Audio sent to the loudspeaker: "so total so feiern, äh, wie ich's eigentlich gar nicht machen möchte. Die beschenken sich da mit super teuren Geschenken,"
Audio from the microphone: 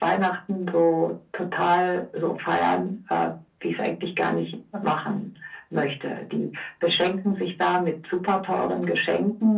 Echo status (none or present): present